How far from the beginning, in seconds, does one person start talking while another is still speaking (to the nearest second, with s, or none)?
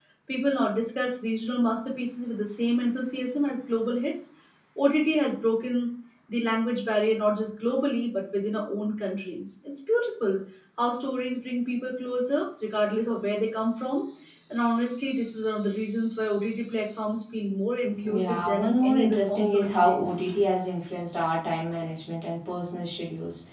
18 s